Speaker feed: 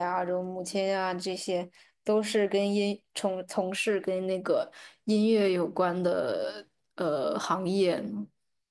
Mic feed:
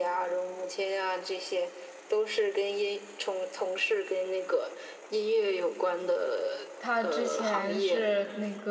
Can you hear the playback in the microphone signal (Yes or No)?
Yes